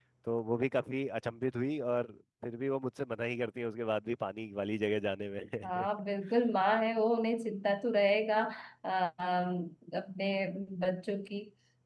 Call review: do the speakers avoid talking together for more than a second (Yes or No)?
Yes